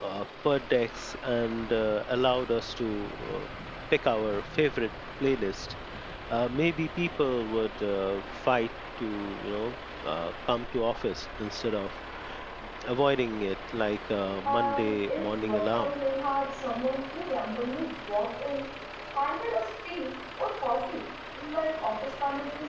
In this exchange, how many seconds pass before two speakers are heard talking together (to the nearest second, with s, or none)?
14 s